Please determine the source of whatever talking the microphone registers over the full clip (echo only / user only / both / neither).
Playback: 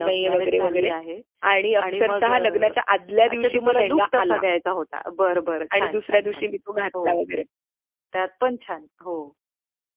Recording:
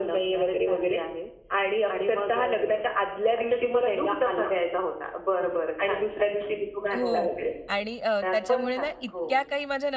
both